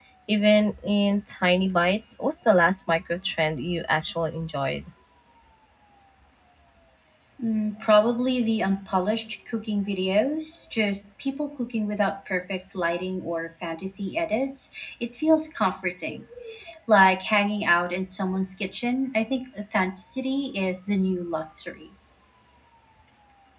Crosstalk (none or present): none